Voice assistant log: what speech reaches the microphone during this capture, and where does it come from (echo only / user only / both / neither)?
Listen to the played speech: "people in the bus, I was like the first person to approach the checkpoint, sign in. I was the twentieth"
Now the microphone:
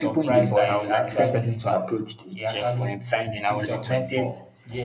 both